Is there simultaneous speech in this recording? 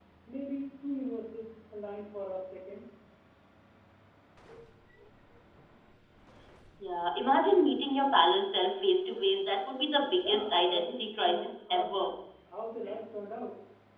Yes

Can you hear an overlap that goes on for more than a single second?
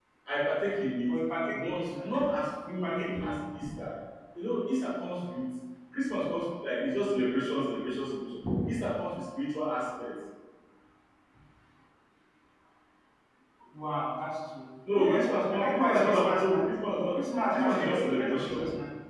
Yes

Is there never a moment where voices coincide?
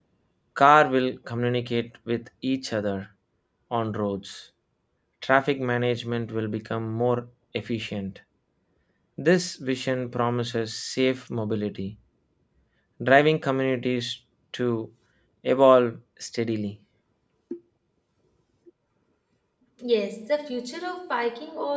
Yes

